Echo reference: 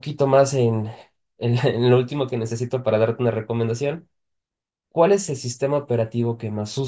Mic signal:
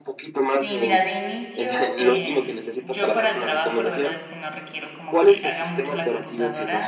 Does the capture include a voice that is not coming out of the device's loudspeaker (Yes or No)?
Yes